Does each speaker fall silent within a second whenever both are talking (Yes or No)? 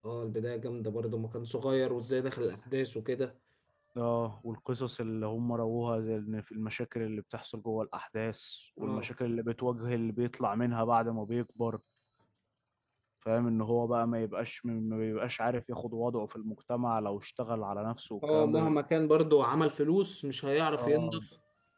Yes